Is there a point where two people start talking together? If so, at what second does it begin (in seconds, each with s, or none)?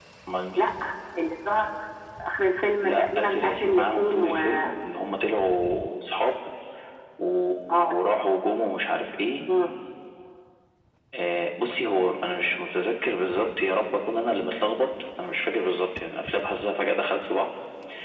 2.8 s